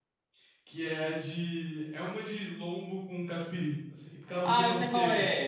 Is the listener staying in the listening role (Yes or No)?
No